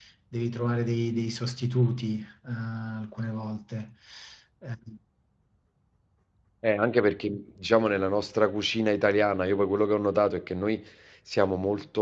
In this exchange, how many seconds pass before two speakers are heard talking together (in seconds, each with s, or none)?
none